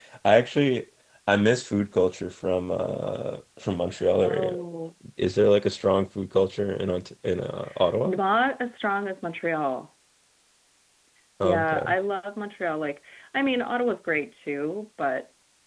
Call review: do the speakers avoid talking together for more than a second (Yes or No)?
Yes